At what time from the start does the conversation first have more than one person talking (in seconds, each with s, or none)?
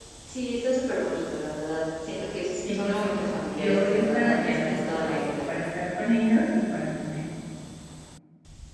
2.6 s